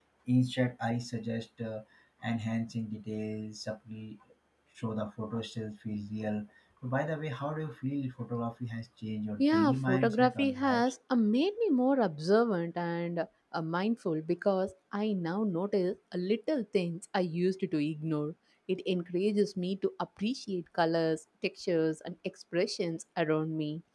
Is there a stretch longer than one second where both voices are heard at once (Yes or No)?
Yes